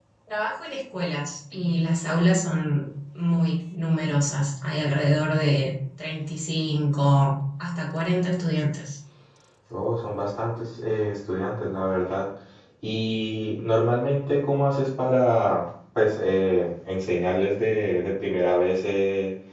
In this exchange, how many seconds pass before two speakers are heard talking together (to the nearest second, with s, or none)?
none